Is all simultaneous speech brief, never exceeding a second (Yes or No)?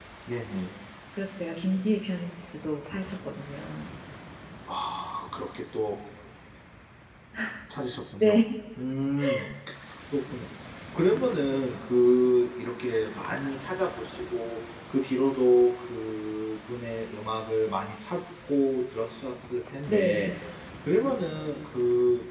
Yes